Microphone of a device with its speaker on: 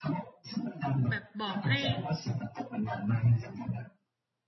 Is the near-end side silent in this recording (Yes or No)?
No